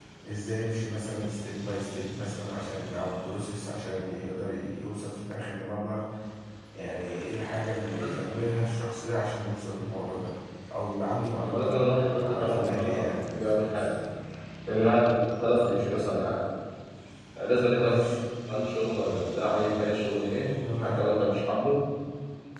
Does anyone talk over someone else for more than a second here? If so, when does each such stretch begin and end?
11.4-13.9

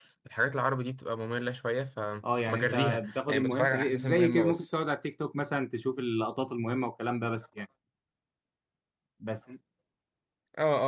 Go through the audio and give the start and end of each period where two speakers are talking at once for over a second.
2.5-4.6

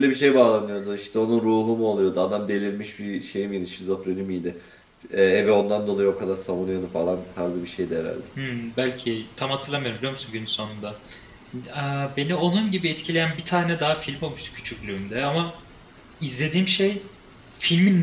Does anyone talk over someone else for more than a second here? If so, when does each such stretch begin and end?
none

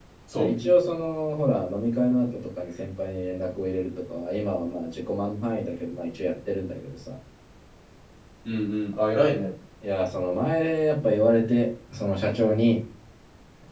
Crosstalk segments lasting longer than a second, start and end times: none

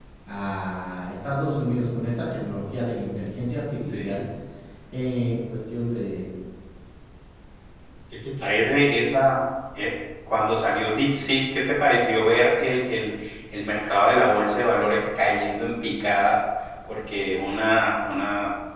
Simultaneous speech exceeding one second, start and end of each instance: none

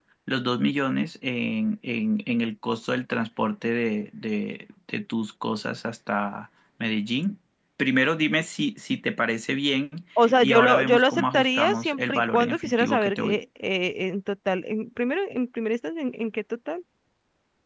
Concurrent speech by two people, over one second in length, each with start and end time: 10.4-13.4

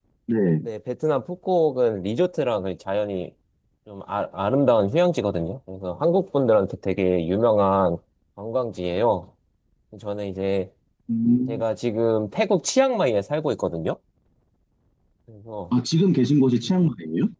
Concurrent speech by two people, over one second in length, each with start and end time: none

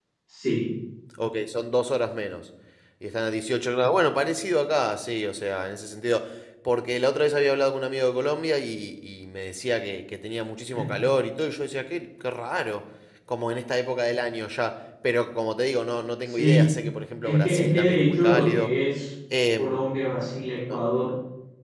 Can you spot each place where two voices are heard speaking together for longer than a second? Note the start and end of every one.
17.2-18.7

